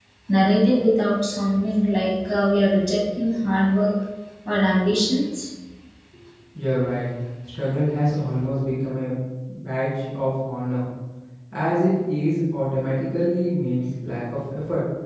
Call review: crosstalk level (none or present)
none